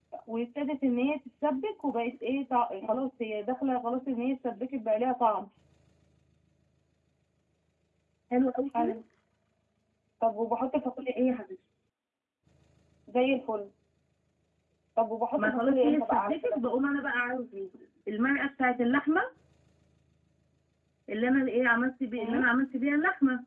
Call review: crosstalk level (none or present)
present